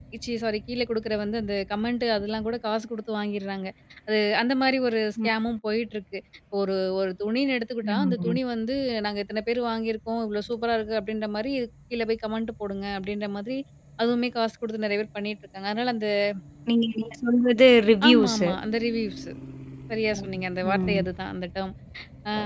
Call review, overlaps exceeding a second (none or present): none